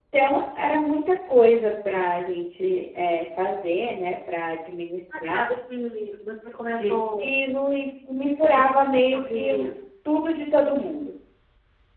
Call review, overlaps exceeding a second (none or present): present